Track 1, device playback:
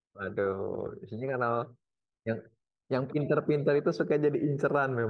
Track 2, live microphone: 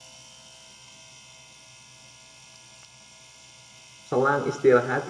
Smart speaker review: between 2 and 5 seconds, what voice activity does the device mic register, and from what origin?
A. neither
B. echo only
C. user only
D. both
C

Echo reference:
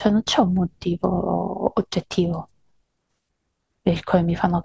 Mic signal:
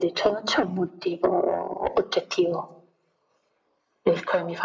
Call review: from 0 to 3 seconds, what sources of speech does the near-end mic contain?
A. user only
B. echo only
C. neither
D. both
B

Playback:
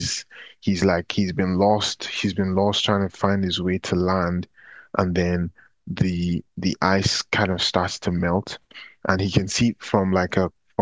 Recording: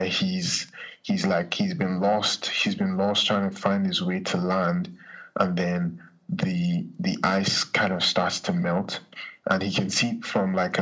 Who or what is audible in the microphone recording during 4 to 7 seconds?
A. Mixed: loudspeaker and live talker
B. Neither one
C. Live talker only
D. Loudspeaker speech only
D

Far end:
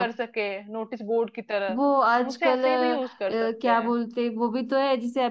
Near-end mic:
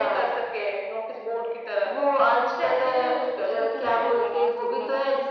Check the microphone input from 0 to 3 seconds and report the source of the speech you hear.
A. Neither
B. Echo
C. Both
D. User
B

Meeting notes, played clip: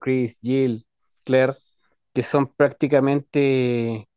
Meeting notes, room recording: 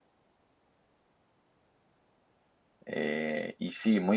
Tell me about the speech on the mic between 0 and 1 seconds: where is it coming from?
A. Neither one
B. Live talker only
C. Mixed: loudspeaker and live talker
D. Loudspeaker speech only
A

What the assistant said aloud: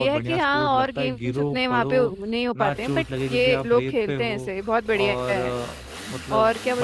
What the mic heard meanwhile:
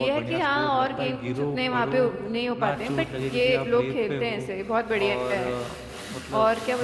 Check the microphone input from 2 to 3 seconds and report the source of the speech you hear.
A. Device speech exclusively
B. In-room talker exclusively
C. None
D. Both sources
A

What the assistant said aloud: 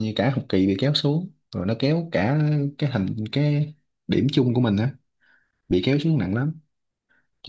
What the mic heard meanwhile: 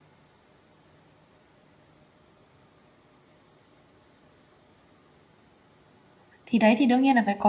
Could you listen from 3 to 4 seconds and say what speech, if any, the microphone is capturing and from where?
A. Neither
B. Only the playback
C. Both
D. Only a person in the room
A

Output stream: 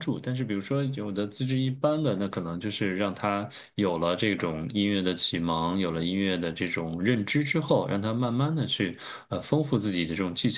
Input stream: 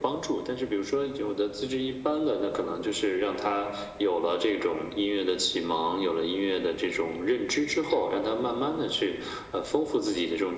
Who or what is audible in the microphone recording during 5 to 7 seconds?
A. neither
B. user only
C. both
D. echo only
D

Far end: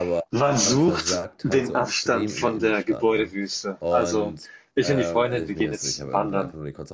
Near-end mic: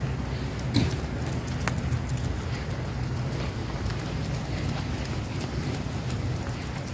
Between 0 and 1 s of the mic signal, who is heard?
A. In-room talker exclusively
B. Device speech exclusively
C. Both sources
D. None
D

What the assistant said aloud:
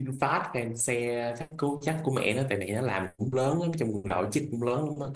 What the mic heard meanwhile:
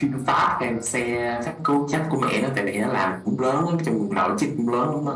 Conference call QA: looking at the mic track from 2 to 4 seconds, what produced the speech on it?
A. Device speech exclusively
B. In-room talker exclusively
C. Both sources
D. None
A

